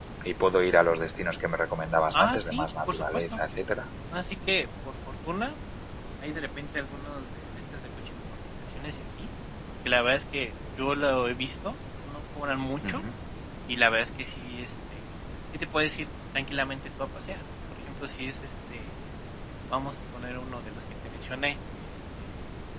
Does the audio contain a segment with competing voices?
Yes, from 2.1 s

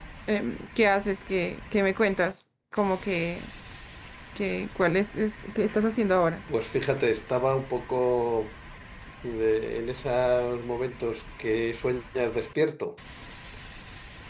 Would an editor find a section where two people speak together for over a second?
No

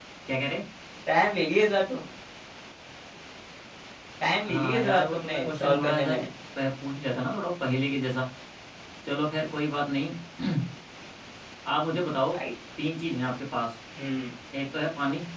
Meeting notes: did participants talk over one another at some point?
Yes, from 4.5 s

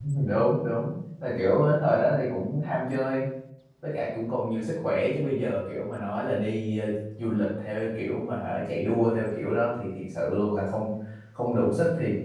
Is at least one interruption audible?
No

